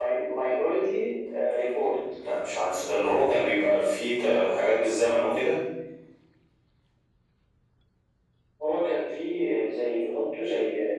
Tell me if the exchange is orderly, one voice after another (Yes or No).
Yes